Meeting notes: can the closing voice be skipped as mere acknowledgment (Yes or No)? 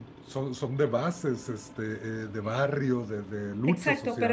No